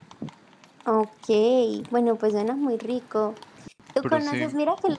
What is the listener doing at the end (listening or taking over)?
listening